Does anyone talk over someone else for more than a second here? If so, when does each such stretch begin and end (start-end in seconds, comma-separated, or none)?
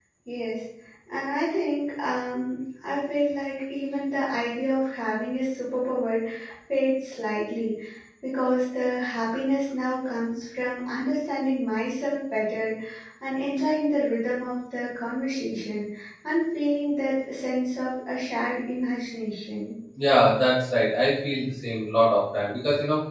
none